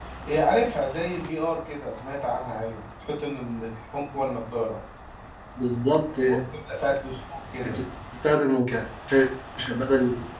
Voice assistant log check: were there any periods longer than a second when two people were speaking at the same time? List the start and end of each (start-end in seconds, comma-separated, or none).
none